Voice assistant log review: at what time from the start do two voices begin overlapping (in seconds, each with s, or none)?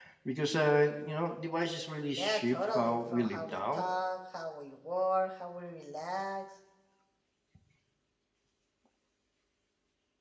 2.2 s